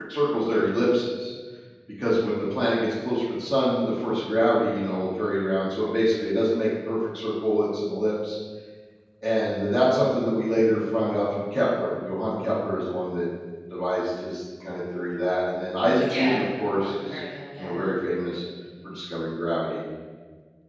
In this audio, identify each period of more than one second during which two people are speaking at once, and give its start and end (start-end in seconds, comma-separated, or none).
16.0-17.2